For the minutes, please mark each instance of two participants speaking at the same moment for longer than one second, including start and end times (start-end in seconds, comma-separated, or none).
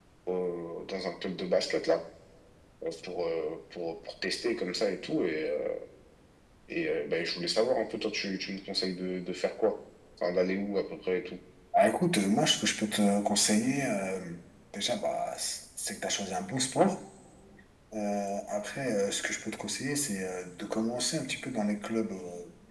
none